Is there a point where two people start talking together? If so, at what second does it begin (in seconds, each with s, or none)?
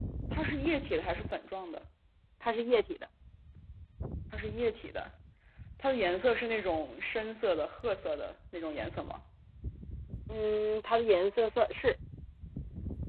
none